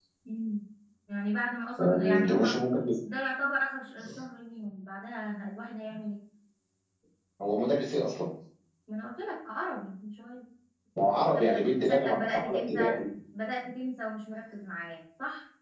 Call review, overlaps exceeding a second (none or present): present